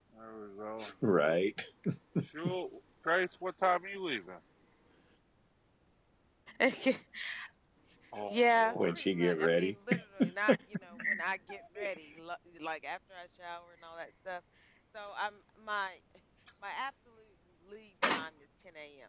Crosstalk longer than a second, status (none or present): present